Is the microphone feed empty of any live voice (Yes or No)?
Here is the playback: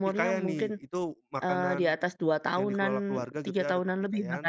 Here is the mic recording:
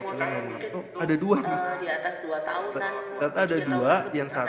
No